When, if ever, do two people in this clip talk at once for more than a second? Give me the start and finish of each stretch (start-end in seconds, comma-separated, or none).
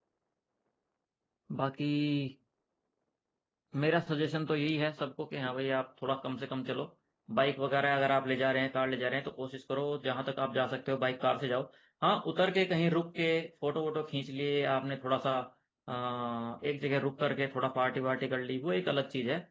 none